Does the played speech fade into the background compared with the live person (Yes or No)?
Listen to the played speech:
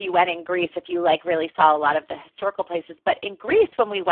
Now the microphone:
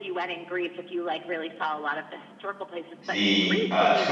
Yes